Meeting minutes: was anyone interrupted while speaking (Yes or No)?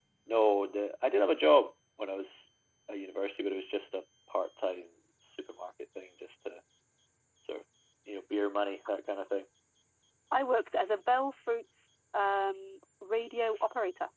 No